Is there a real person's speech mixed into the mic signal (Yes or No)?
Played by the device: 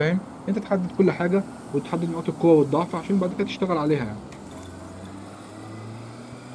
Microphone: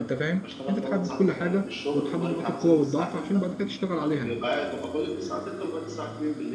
Yes